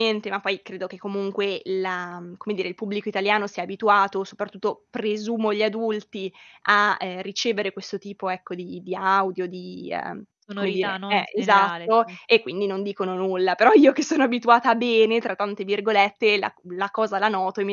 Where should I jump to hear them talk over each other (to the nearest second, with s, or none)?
10 s